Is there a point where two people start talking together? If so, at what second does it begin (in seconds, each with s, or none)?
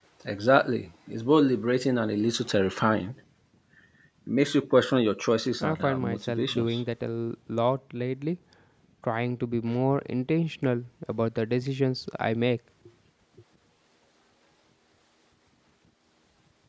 5.6 s